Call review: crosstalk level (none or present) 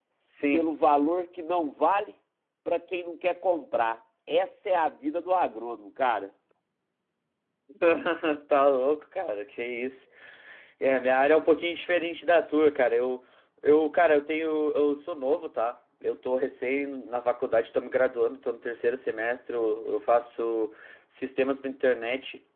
none